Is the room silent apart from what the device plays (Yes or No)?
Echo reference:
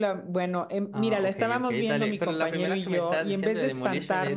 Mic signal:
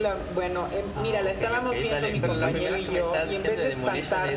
No